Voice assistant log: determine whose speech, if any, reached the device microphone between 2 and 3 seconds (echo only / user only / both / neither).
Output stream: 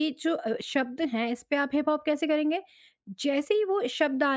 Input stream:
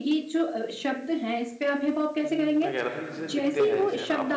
both